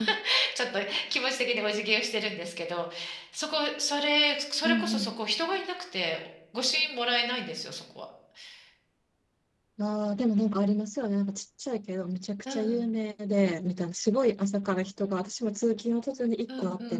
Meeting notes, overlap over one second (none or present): none